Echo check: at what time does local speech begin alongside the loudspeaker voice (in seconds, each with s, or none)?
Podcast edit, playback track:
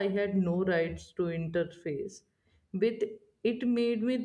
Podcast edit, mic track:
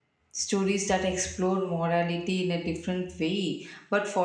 0.3 s